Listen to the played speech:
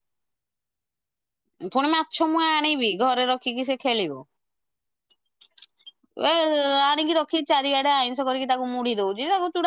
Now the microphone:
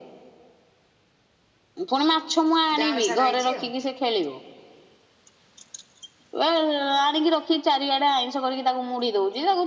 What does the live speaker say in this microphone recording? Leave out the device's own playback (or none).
ଯାଆଁଳ ଛଡା ହେଇଛି ଆଉ।